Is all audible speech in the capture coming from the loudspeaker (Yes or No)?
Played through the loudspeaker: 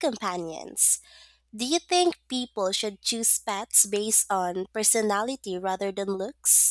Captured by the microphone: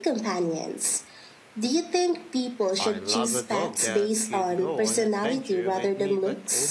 No